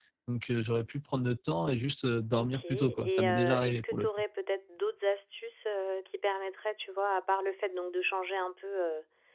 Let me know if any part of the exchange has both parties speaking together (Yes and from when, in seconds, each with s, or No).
Yes, from 2.4 s